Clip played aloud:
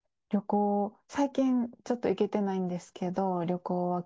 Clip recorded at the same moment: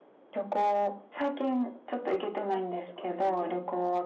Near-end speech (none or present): present